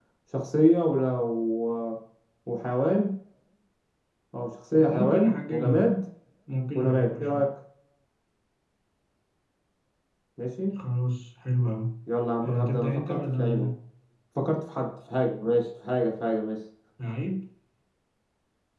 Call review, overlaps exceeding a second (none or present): present